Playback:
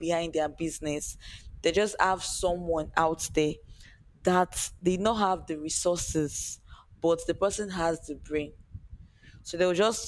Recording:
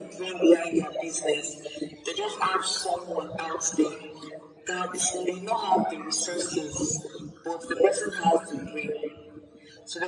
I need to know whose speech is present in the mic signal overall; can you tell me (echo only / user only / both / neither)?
echo only